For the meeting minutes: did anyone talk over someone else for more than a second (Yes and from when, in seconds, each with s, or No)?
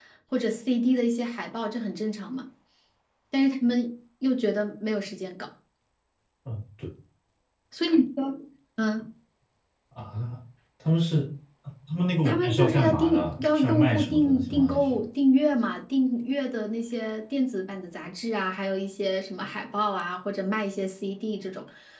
Yes, from 12.2 s